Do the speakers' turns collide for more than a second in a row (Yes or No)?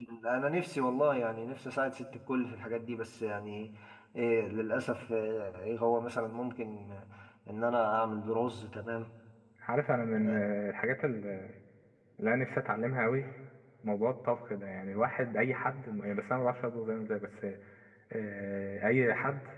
No